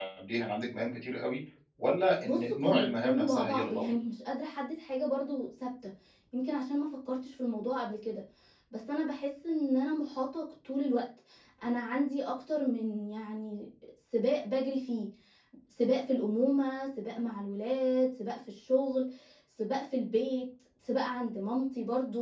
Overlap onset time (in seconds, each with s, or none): 2.2 s